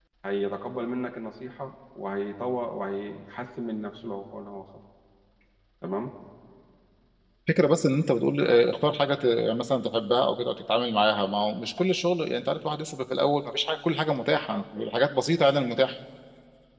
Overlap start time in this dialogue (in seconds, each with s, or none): none